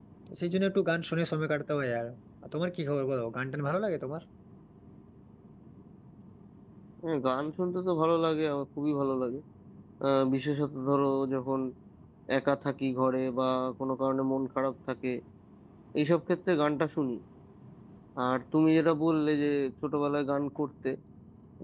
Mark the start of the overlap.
none

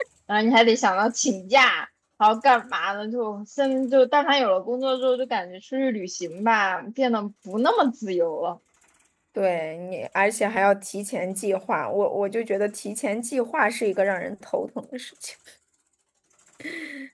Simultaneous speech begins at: none

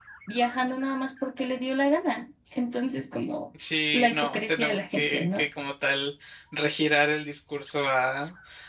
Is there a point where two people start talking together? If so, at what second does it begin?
3.9 s

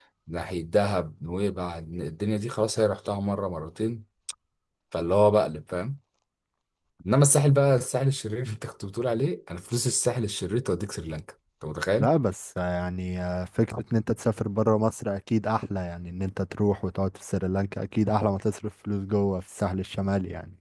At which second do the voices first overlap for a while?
none

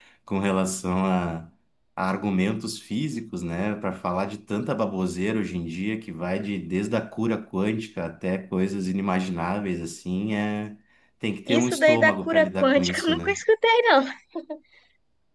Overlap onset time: 11.5 s

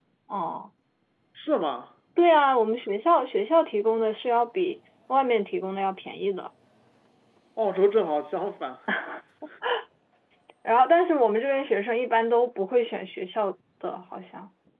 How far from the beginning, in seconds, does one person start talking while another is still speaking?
none

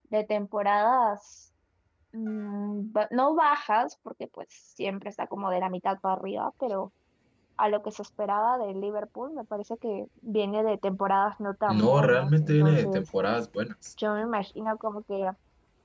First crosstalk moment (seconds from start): 11.7 s

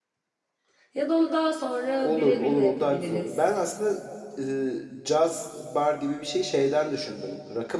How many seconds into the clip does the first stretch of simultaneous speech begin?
2.0 s

